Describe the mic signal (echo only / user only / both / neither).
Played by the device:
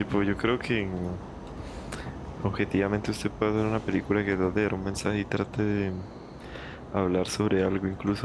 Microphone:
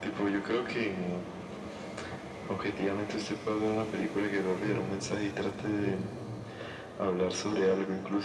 both